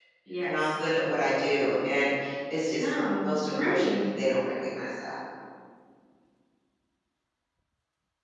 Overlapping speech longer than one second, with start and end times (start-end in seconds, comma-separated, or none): 2.8-4.0